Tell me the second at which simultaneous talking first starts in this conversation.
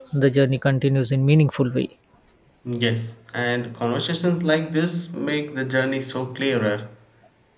none

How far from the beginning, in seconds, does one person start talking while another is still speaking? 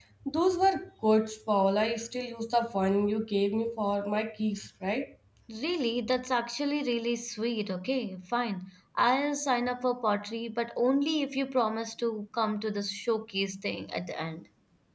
none

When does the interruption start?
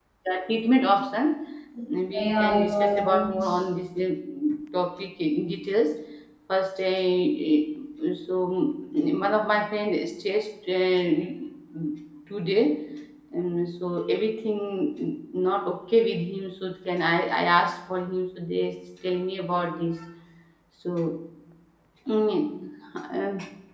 2.2 s

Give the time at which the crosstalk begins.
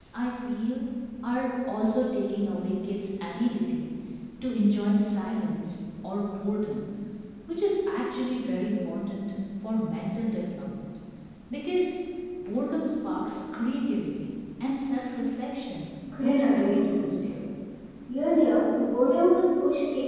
16.1 s

